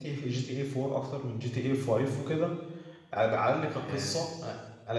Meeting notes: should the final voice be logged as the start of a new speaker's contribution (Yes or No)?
No